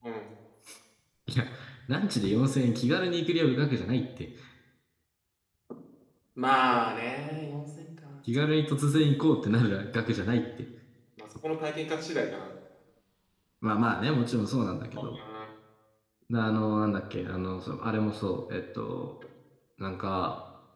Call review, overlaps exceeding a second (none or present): none